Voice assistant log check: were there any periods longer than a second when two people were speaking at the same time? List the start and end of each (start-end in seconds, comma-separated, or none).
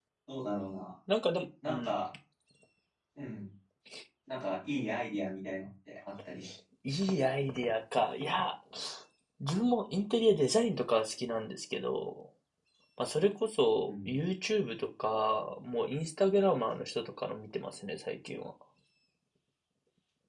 none